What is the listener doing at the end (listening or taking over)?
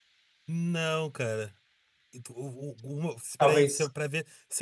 listening